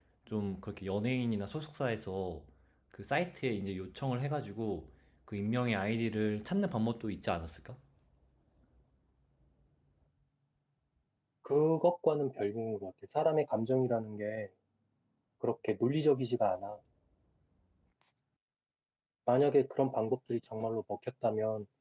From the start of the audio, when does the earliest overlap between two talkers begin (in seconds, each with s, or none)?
none